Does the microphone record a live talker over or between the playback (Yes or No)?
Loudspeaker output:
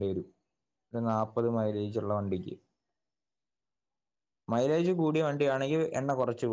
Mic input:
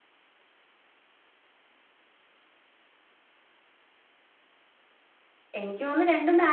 Yes